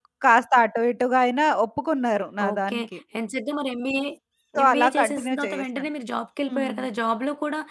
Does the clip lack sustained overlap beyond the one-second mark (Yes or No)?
No